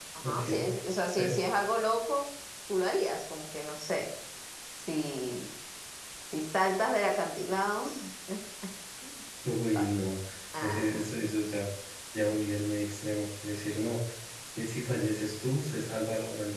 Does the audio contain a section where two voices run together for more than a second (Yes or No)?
No